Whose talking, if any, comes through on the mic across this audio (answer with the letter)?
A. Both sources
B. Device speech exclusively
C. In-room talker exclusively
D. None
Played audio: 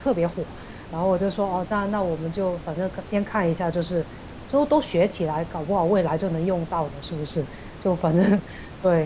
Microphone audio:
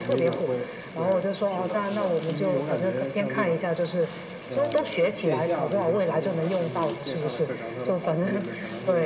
A